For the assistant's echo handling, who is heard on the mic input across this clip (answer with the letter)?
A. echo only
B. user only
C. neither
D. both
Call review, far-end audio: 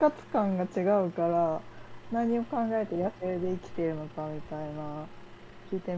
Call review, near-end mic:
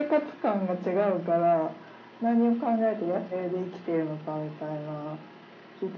A